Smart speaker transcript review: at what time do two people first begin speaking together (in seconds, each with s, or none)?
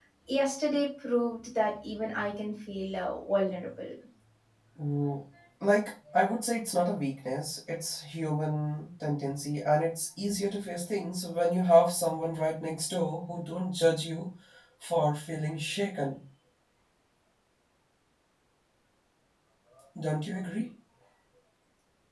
none